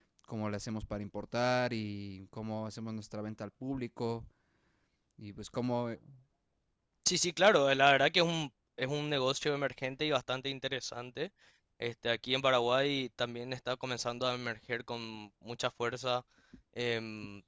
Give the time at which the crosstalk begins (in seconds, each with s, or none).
none